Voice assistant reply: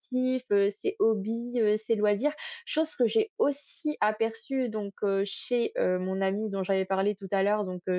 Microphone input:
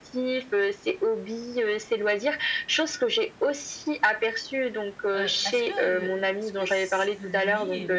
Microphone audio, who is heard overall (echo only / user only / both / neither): both